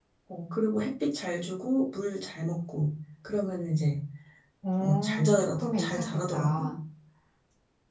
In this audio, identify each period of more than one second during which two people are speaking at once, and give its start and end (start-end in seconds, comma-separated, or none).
4.8-6.7